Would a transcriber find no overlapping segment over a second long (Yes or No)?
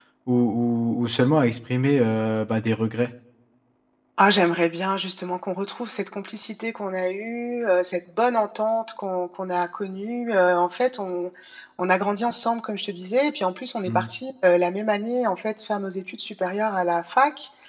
Yes